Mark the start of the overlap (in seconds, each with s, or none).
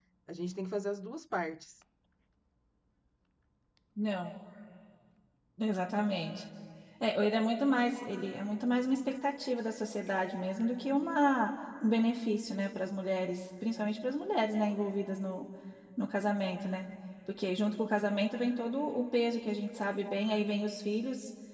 none